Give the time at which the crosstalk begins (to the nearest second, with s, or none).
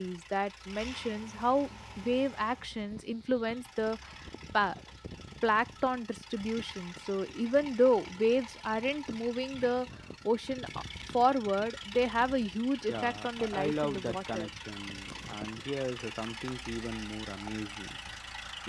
13 s